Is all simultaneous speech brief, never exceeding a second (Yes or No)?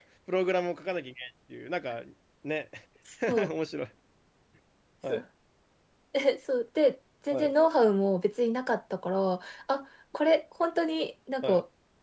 Yes